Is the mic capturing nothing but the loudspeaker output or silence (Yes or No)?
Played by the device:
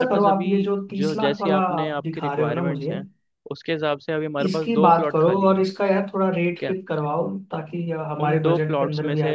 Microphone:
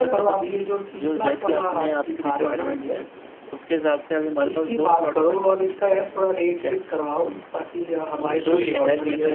No